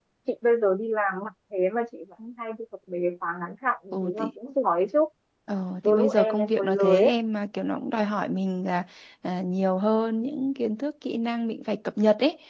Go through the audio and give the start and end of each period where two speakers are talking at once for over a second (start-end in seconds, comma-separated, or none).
5.8-7.1